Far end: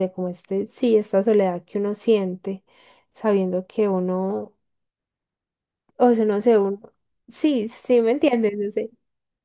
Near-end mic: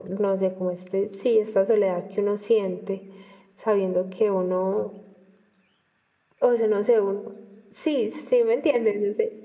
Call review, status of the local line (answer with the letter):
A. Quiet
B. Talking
A